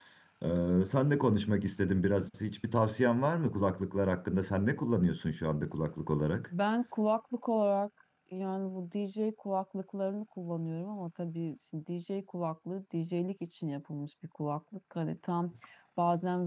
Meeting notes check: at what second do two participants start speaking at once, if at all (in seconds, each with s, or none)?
none